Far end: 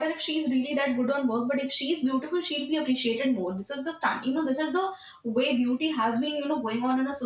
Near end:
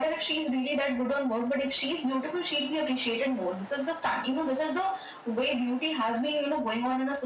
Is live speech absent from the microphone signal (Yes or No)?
Yes